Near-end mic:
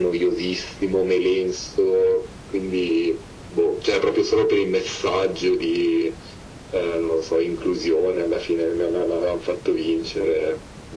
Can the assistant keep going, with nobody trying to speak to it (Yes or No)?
Yes